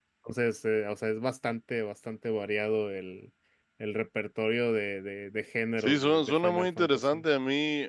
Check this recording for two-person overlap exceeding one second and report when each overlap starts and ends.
5.8-7.2

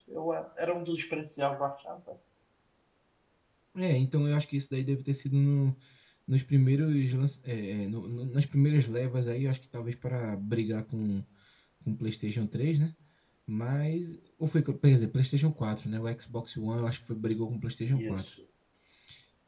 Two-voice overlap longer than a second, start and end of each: none

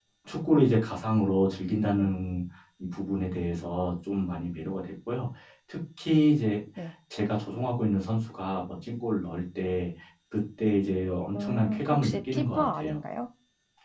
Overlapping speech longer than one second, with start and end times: 11.4-13.0

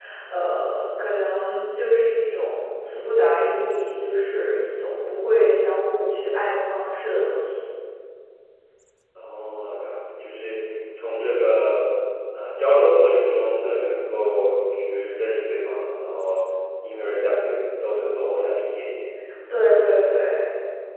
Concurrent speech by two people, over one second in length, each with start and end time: none

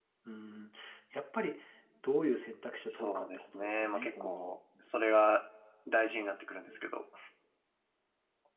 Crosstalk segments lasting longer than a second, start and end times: 2.9-4.5

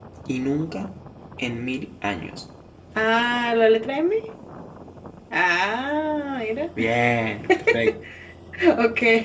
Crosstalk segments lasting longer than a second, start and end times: none

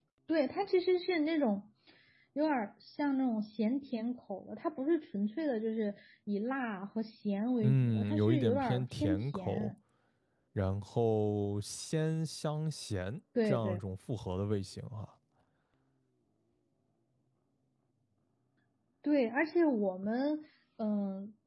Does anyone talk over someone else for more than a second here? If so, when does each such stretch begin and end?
7.6-9.7

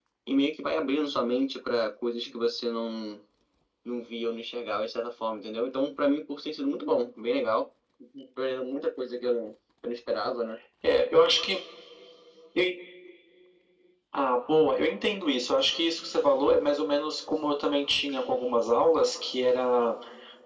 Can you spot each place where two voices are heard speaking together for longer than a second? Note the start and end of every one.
none

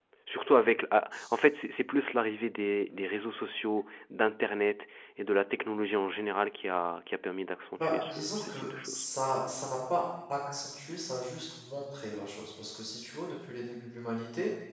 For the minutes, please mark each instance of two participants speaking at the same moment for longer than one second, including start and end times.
7.8-9.0

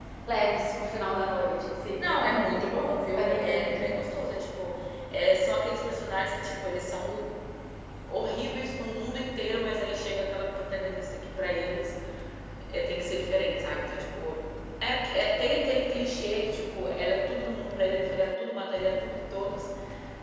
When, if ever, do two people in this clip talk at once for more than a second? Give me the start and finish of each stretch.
2.0-3.9

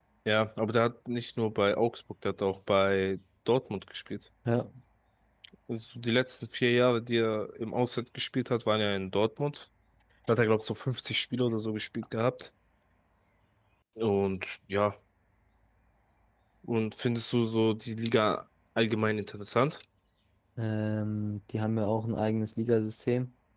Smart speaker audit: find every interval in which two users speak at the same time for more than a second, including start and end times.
none

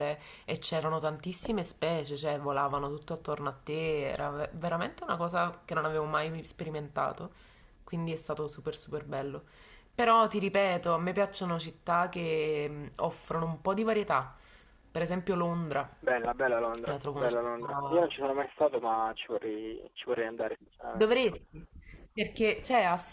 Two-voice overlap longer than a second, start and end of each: 16.8-18.1

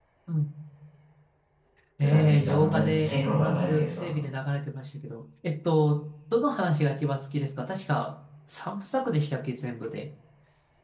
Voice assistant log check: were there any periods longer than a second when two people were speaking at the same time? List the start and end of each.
2.0-4.1

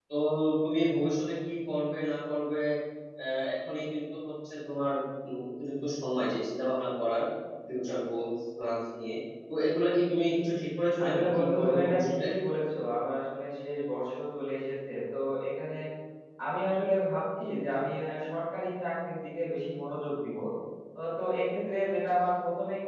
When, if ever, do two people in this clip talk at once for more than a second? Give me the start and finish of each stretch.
11.0-12.2

